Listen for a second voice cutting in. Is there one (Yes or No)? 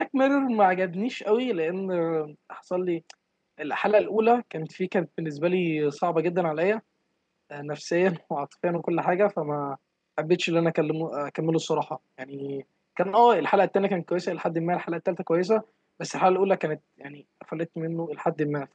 No